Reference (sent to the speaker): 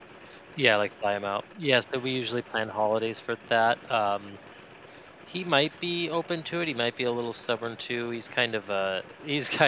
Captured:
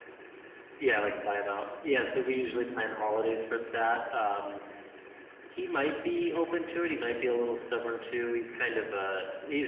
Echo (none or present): present